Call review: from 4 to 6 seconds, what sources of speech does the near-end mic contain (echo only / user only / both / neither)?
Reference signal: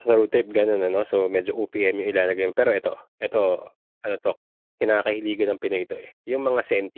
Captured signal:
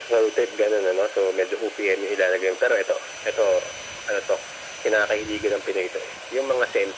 echo only